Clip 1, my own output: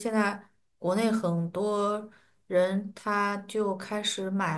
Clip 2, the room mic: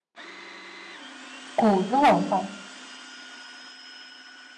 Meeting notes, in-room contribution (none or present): present